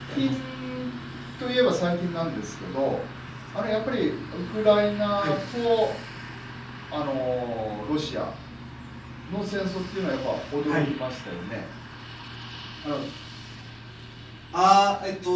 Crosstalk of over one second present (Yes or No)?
No